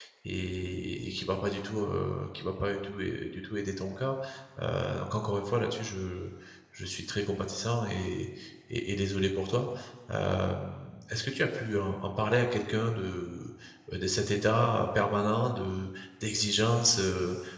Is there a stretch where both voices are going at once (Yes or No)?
No